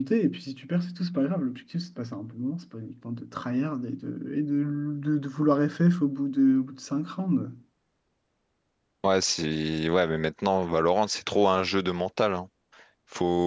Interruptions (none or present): none